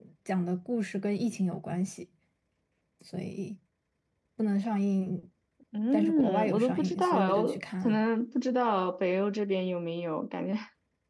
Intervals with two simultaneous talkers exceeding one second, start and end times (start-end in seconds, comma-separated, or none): 5.9-8.1